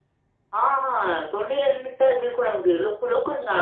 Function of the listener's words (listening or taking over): listening